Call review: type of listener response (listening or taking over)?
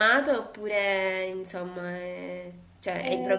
taking over